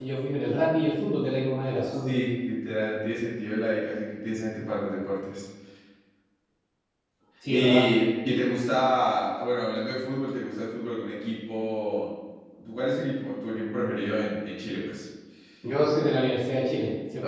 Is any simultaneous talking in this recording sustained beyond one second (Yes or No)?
No